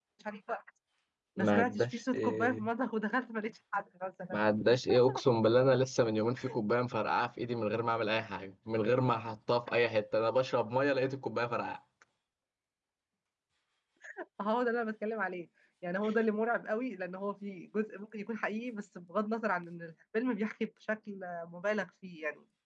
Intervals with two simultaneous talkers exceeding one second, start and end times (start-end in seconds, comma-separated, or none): 1.4-2.6